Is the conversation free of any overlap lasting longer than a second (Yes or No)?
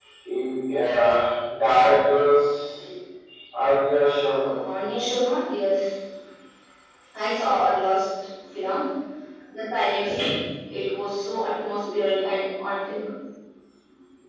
Yes